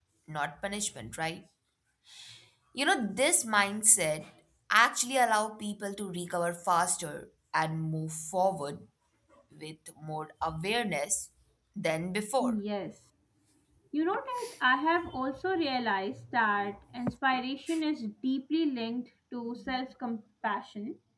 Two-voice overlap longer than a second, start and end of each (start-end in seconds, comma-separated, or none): none